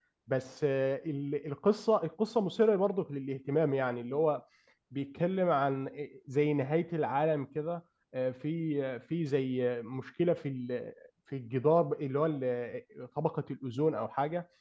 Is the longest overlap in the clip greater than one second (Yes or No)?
No